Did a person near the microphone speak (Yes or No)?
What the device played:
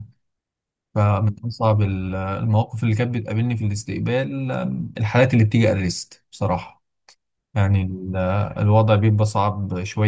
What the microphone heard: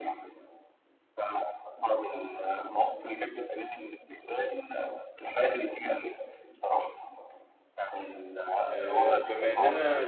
Yes